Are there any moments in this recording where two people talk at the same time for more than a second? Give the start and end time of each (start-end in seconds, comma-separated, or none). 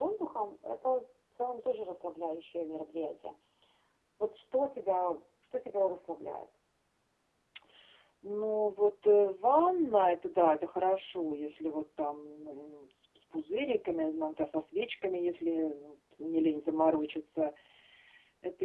none